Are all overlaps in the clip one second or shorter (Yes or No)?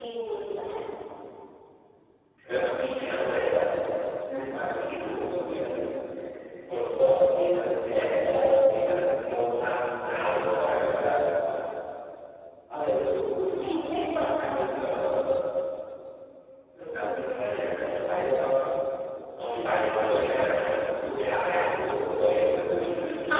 Yes